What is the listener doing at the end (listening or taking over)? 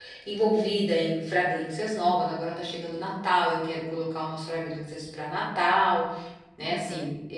listening